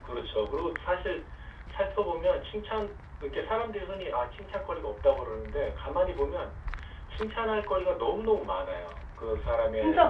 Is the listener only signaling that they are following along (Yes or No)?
Yes